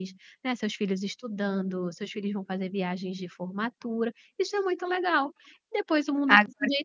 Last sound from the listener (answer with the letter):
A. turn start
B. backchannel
A